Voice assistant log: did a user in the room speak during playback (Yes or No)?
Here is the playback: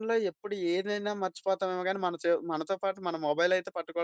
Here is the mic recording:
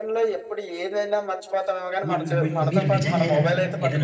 Yes